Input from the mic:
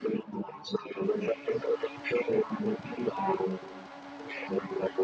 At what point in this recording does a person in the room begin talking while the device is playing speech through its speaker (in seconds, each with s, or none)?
none